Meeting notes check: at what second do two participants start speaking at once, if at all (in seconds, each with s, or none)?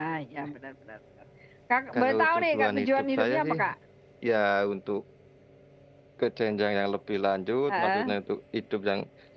1.9 s